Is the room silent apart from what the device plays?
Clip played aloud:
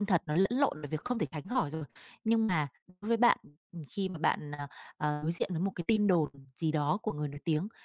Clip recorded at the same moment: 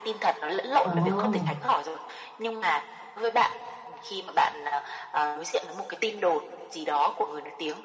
No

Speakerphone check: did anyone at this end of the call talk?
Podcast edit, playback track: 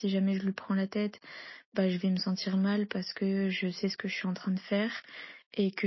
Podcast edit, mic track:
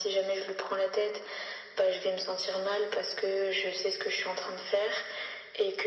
No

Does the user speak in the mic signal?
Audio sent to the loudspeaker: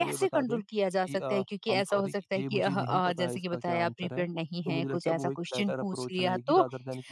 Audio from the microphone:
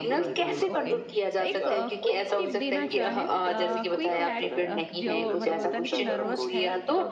Yes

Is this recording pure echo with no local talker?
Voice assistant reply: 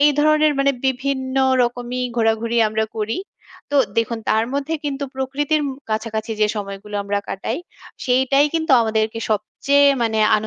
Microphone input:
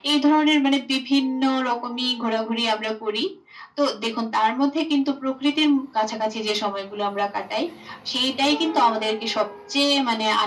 Yes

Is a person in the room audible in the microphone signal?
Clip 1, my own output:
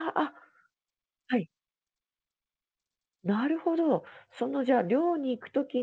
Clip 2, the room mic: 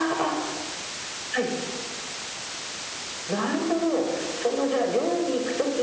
No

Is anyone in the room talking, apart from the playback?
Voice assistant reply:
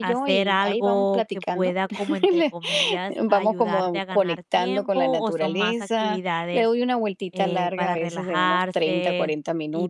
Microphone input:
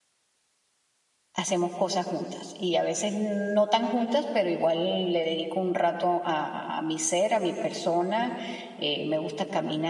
Yes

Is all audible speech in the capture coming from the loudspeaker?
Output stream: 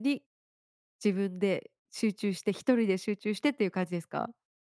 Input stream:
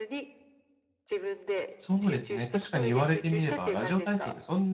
No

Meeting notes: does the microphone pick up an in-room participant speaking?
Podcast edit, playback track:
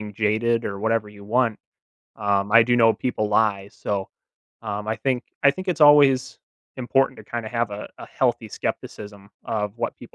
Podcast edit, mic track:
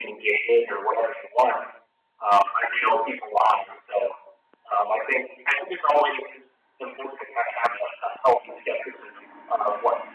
No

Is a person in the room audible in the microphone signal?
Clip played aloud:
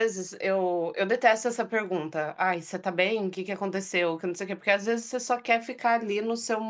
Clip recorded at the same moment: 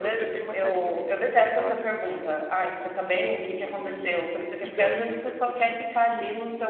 Yes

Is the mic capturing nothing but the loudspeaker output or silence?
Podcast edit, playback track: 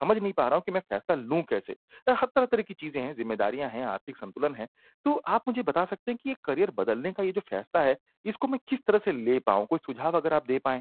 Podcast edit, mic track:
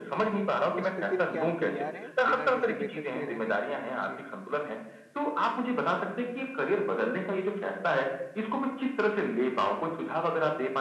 No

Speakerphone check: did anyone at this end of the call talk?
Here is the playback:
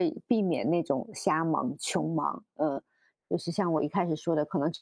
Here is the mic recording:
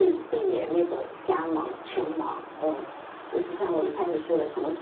No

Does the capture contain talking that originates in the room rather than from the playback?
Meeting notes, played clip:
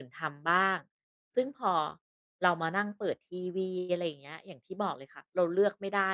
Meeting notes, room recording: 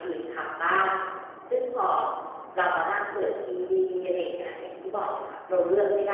No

